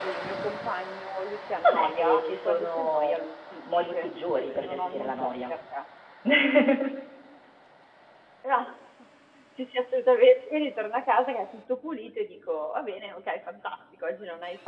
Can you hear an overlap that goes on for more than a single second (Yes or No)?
Yes